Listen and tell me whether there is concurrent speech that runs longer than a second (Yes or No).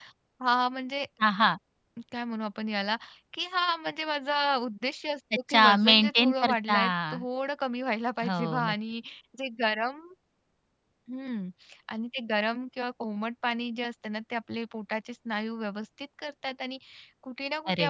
Yes